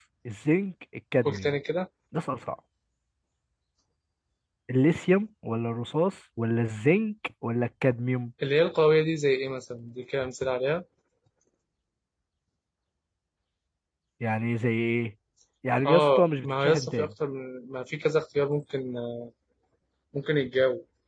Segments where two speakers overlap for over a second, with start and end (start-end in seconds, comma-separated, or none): 15.8-17.1